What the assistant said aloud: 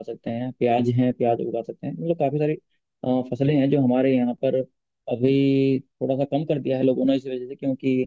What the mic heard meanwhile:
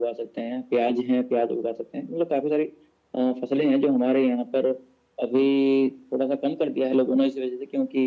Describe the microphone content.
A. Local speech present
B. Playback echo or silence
B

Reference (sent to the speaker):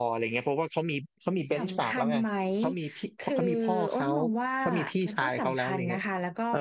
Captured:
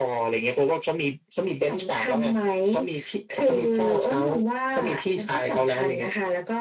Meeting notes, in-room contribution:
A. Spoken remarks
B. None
B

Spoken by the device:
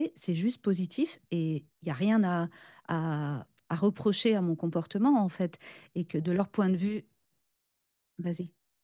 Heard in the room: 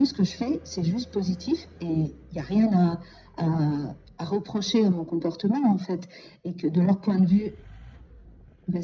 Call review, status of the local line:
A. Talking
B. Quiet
B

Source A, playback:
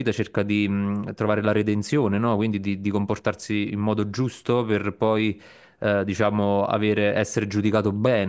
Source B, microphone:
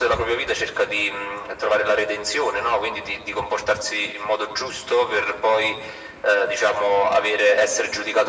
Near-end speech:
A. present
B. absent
B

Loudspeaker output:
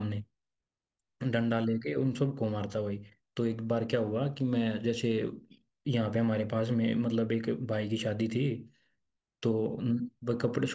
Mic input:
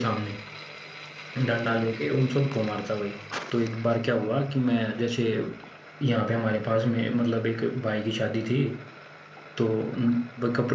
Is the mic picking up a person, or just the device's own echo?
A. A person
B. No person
B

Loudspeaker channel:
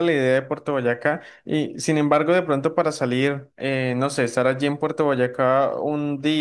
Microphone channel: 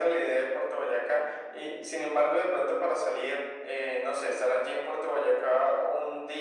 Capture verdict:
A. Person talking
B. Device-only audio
B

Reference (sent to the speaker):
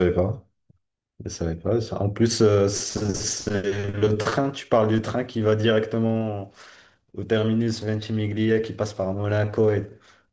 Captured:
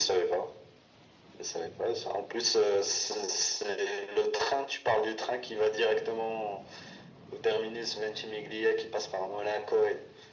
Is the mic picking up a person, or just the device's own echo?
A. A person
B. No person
B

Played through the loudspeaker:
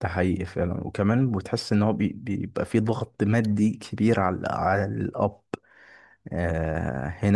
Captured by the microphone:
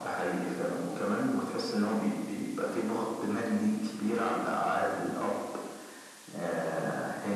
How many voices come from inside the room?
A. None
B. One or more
A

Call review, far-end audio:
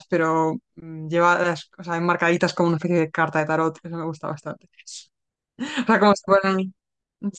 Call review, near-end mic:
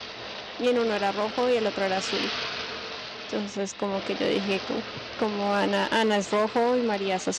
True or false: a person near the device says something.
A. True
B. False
A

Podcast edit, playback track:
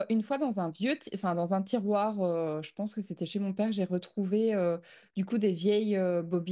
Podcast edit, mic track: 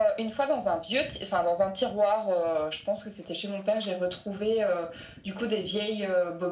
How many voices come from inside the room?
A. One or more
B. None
B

